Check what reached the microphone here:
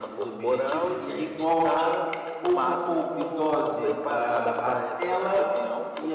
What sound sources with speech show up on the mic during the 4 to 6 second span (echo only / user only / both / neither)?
both